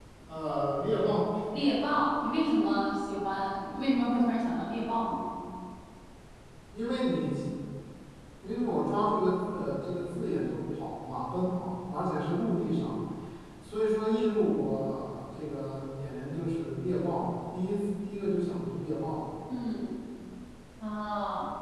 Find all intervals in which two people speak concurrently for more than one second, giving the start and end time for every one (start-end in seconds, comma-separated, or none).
none